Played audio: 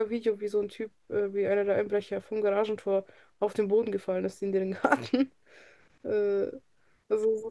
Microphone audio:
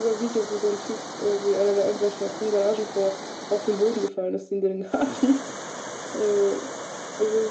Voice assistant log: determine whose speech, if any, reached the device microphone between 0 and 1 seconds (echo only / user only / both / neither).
echo only